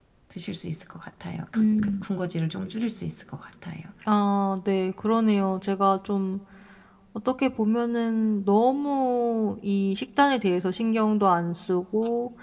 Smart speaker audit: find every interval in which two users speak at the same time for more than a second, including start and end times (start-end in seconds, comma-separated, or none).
none